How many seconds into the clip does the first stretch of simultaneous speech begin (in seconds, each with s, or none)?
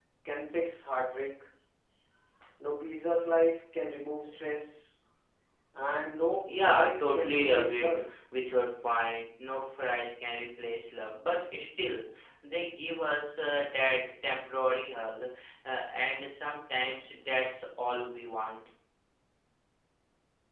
6.6 s